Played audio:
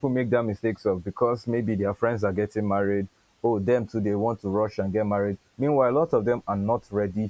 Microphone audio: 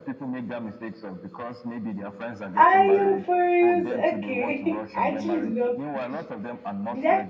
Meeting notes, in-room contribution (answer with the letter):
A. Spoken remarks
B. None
A